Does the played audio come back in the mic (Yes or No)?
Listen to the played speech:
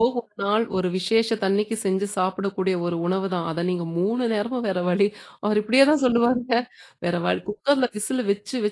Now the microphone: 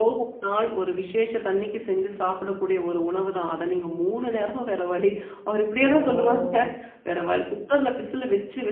Yes